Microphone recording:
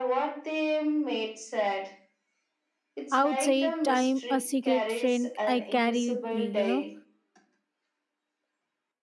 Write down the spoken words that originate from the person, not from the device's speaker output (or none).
outside time, a secret friend I carry with me, you know.